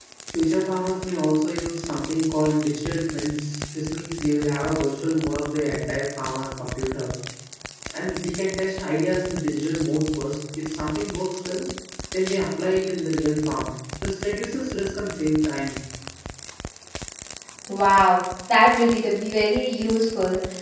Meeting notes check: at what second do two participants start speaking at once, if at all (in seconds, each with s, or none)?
none